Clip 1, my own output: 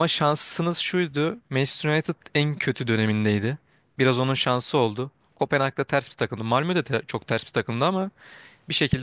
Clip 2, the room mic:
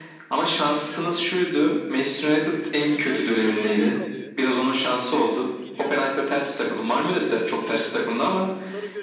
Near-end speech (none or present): present